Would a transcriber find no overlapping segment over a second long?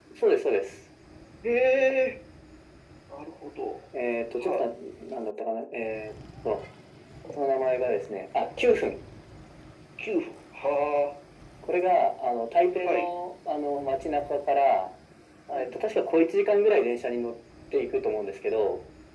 Yes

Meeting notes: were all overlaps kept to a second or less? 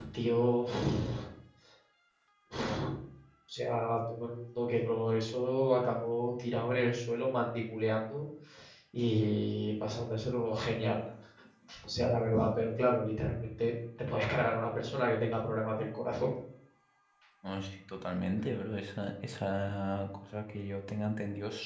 Yes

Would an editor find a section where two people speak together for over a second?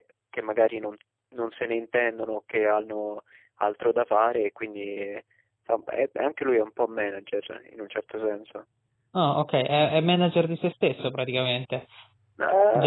No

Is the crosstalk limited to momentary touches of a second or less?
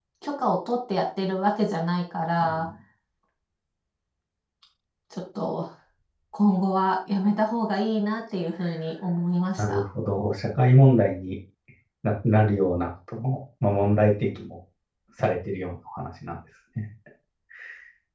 Yes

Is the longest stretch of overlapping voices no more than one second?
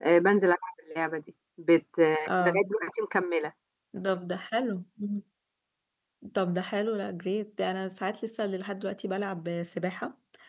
Yes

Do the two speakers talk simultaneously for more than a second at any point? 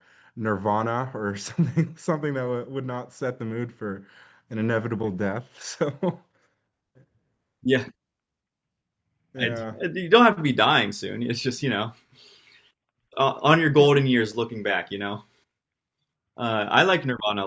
No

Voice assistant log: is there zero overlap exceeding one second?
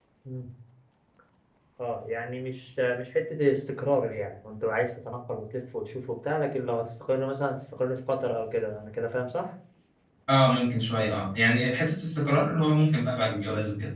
Yes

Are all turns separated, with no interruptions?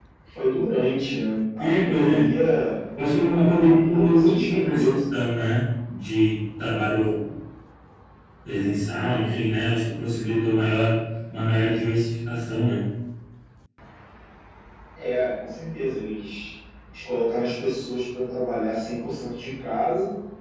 No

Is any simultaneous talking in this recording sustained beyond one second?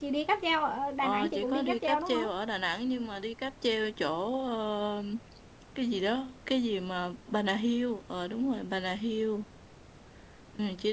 Yes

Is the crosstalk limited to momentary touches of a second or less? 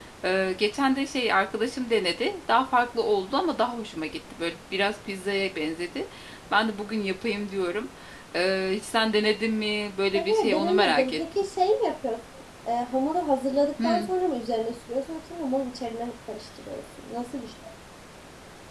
No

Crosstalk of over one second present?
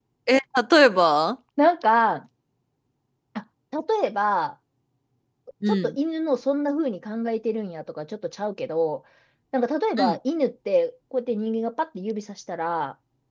No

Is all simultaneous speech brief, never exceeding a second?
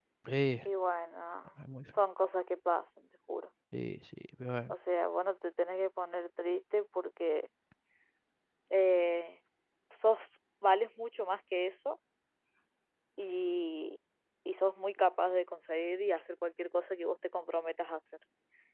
Yes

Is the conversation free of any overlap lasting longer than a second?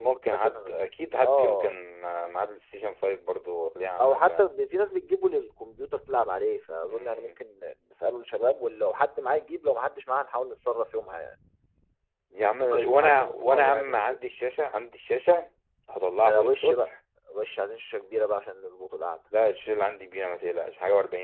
No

